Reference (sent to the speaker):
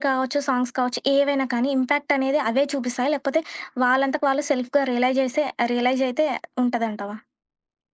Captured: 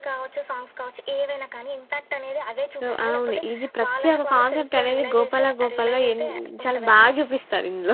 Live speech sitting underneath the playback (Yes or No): No